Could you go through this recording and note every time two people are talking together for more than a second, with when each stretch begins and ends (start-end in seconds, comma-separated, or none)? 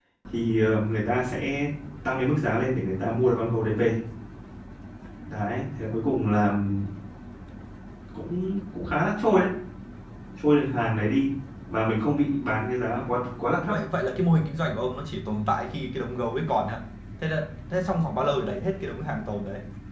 none